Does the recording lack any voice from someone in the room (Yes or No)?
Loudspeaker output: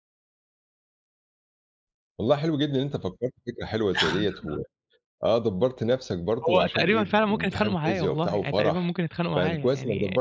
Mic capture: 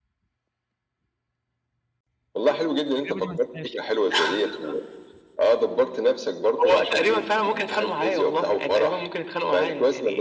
No